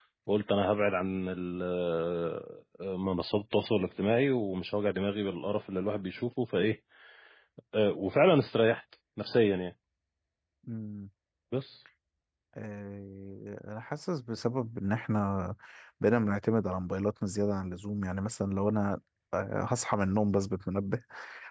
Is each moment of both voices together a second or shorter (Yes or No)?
Yes